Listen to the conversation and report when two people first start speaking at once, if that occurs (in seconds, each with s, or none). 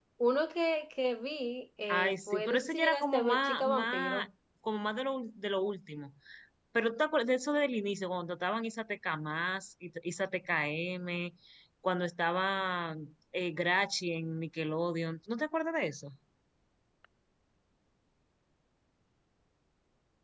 1.9 s